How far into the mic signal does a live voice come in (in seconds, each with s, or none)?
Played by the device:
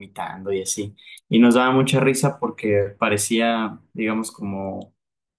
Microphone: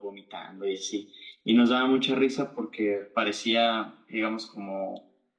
none